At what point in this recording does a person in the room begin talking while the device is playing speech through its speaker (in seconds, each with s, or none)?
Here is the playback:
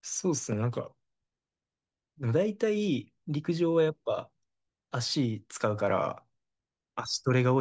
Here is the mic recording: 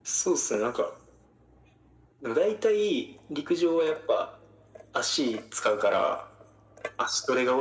none